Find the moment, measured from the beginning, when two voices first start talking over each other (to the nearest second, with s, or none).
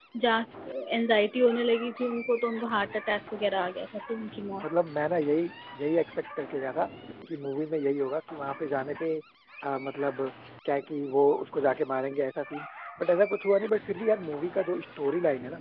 none